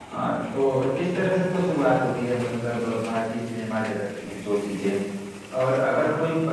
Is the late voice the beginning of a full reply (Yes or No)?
No